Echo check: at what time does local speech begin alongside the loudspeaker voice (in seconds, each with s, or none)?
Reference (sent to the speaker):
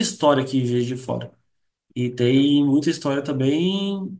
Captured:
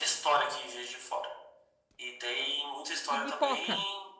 3.2 s